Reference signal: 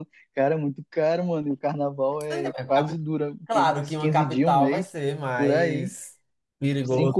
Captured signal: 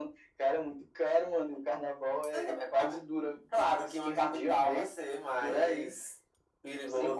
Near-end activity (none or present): none